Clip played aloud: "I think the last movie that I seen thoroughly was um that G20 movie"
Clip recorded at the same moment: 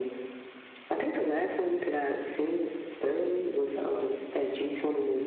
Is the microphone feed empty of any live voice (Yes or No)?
Yes